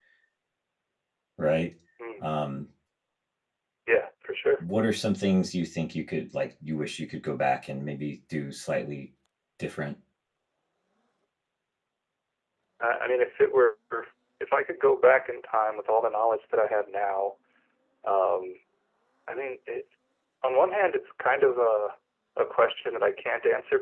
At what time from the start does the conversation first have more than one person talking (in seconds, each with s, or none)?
none